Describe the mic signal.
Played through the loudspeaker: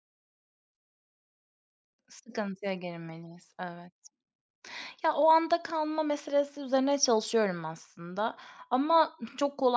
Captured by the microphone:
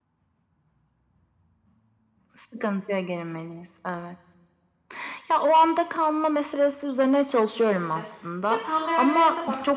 both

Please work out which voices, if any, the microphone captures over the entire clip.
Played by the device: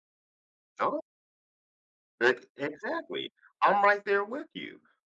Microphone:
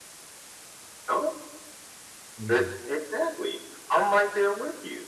both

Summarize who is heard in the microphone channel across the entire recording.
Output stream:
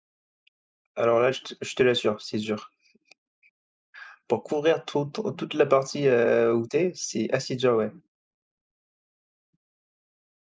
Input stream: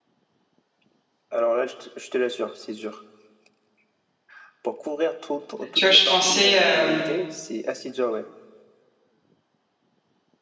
both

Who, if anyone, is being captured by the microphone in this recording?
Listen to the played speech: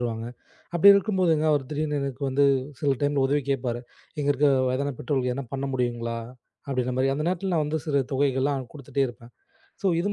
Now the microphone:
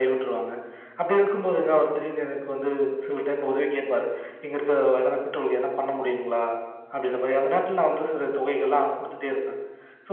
echo only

